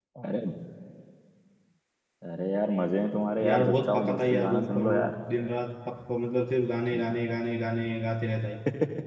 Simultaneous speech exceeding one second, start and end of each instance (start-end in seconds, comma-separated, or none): 3.4-5.1